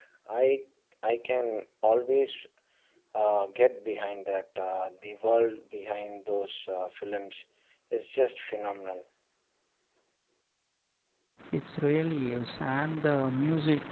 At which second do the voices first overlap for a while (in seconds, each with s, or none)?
none